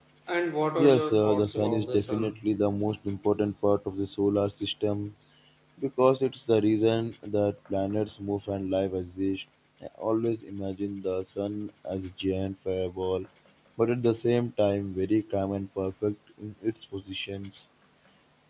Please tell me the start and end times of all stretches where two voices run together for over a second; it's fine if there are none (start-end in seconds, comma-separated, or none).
0.8-2.3